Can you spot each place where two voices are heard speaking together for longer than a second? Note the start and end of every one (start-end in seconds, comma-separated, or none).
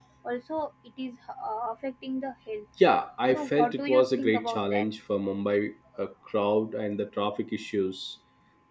3.3-4.9